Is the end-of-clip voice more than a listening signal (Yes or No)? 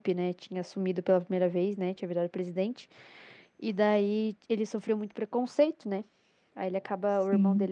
No